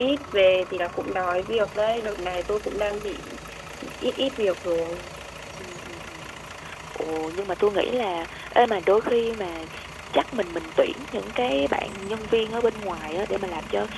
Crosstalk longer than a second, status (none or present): none